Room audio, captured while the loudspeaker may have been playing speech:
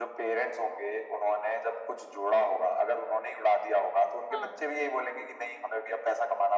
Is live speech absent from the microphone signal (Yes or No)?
No